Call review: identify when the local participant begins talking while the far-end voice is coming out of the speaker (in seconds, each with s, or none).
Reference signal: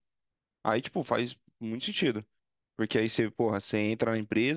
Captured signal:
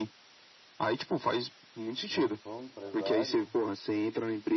2.1 s